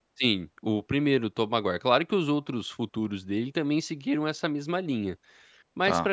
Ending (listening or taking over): taking over